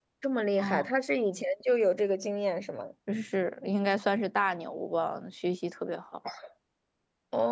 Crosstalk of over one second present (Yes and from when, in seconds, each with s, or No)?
No